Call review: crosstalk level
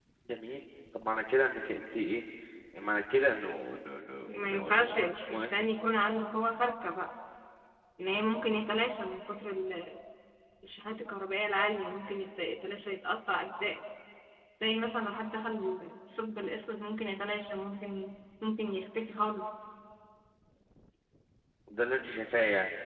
present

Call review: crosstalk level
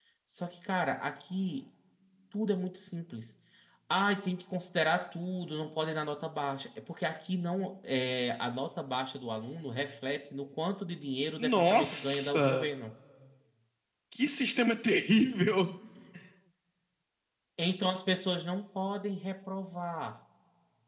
present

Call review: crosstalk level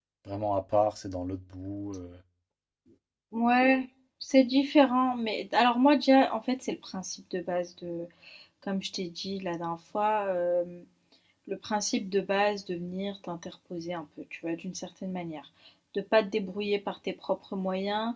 none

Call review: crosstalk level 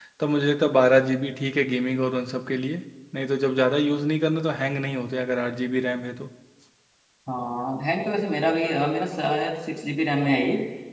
none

